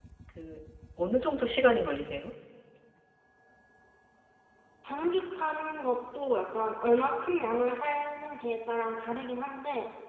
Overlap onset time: none

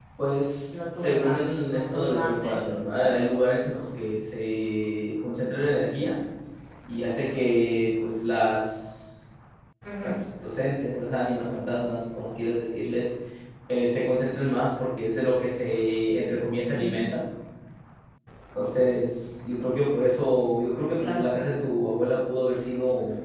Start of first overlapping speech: 1.0 s

